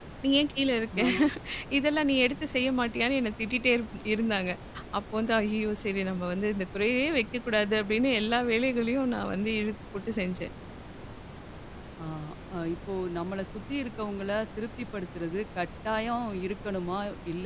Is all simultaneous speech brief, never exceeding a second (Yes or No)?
Yes